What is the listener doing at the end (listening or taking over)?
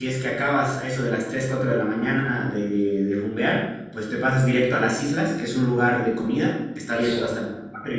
listening